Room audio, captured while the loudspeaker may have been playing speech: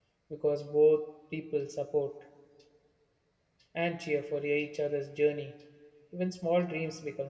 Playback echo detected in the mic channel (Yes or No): No